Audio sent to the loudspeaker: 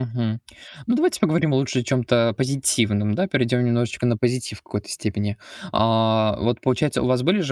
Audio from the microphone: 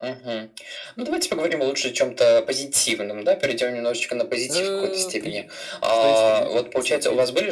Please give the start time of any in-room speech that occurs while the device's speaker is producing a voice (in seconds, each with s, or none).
4.5 s